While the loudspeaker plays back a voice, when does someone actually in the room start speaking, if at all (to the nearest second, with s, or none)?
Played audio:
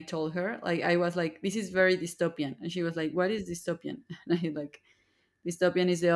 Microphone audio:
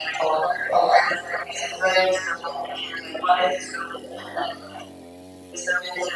none